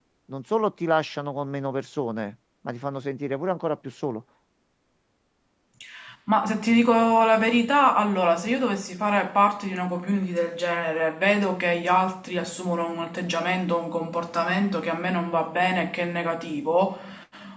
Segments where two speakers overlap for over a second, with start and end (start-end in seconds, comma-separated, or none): none